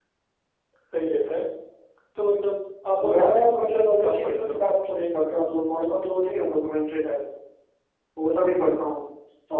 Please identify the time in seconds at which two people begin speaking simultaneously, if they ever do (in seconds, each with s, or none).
3.0 s